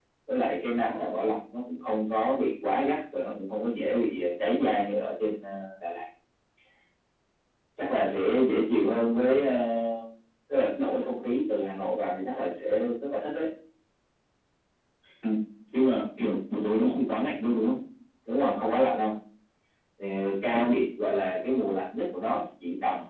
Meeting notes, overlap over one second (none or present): none